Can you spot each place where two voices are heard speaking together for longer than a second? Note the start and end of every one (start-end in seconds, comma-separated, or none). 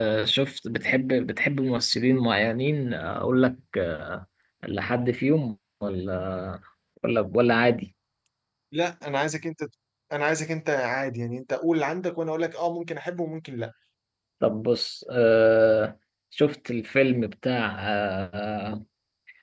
none